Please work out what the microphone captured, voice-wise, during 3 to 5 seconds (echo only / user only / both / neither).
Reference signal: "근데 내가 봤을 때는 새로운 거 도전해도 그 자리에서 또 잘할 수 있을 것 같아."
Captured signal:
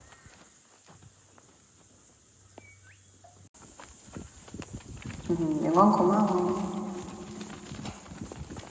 neither